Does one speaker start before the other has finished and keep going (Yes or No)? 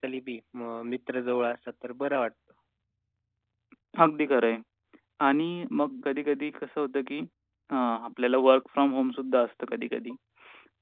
No